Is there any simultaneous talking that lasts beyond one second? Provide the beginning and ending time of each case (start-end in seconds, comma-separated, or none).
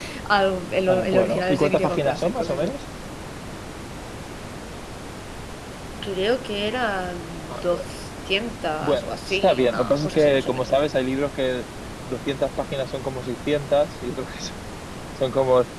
0.9-2.6, 8.8-10.7